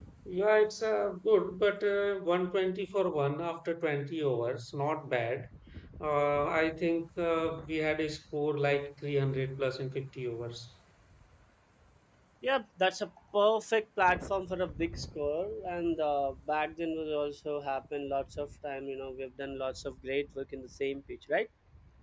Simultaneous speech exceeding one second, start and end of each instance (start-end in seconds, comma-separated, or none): none